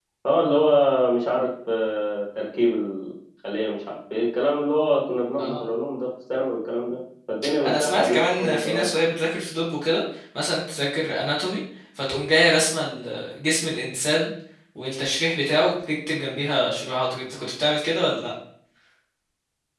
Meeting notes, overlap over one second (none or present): present